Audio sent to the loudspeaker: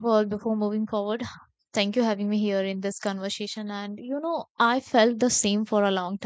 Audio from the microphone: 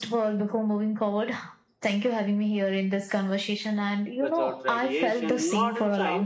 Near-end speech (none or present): present